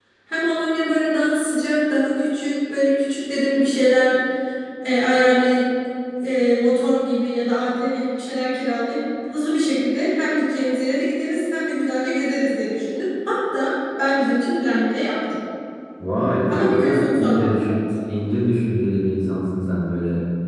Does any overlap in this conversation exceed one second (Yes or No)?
Yes